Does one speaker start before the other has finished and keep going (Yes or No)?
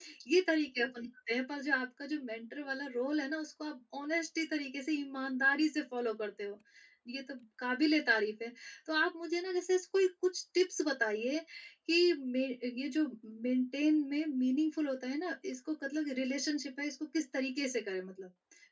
No